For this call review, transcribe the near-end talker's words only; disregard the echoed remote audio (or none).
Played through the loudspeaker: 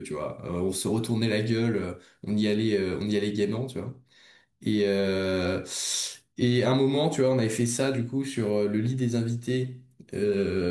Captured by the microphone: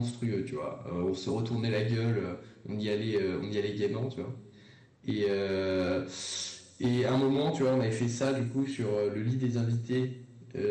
none